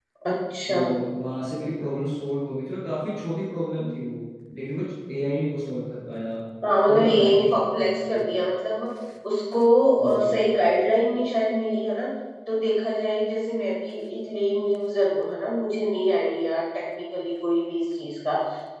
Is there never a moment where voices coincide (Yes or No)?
No